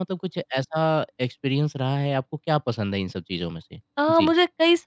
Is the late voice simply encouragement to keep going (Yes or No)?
No